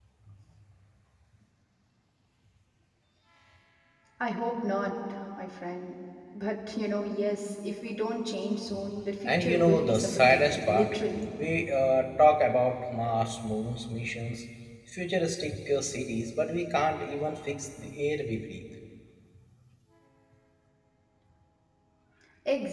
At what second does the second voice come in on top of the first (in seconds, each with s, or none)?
9.2 s